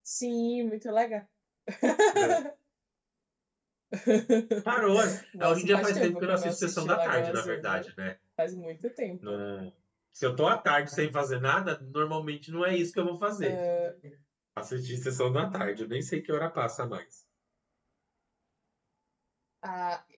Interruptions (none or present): present